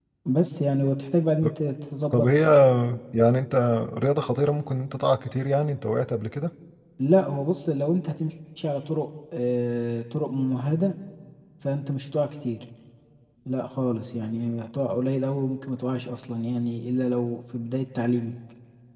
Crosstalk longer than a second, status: none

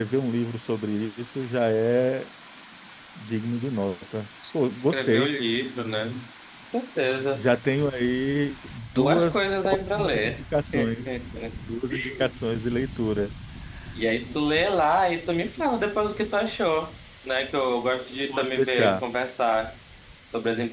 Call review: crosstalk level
present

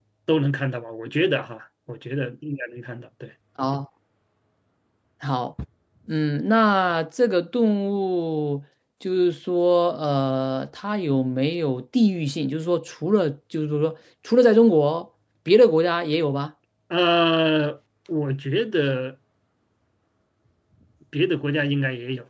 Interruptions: none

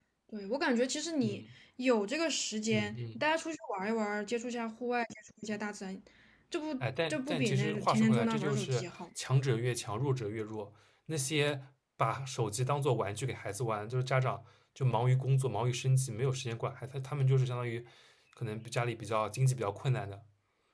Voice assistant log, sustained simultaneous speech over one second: present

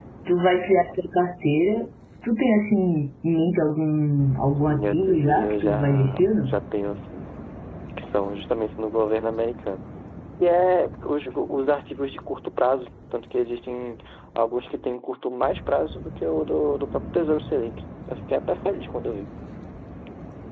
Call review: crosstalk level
present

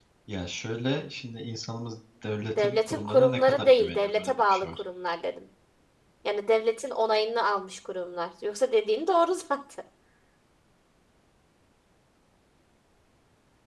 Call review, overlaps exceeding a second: present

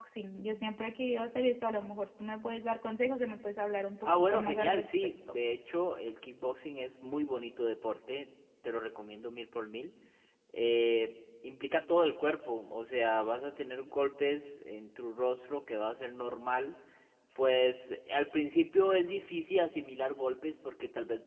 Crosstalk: present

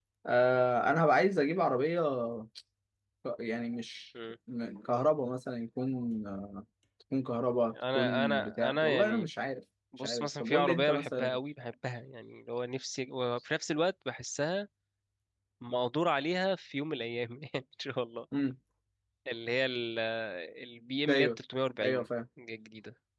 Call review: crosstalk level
present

